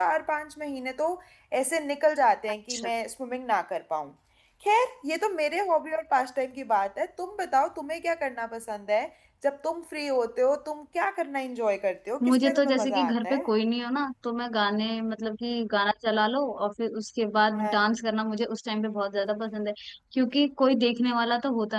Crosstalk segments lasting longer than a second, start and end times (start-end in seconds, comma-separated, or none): 12.2-13.5